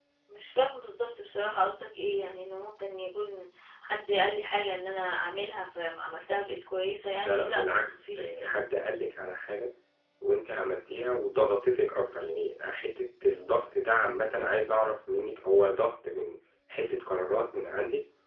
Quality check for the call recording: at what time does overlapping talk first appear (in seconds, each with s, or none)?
7.2 s